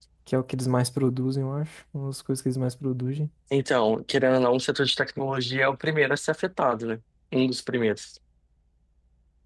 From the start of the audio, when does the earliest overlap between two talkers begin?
none

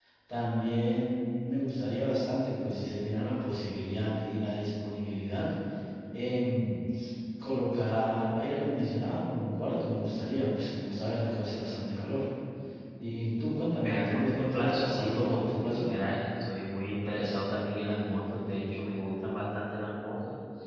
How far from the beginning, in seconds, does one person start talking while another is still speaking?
13.8 s

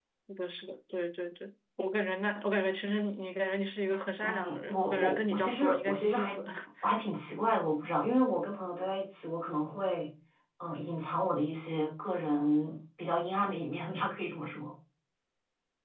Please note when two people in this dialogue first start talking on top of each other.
4.2 s

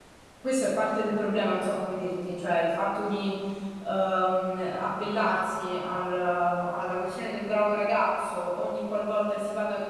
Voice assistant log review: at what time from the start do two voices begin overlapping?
none

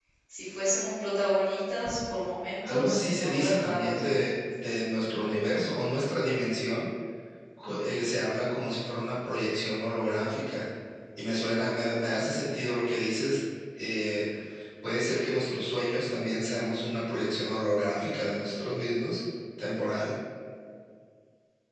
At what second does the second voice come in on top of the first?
2.6 s

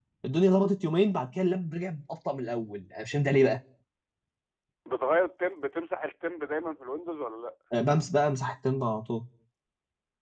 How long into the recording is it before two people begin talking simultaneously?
none

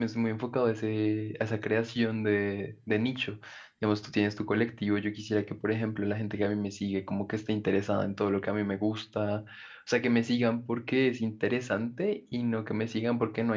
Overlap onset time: none

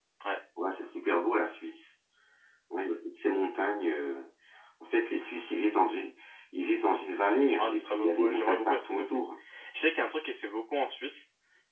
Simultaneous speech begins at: 7.5 s

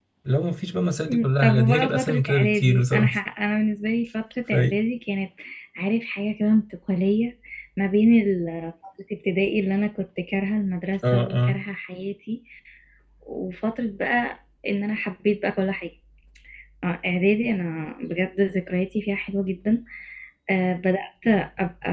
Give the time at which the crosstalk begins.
1.1 s

